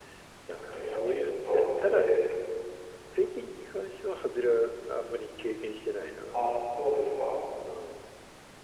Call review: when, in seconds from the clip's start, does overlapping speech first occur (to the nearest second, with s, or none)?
1 s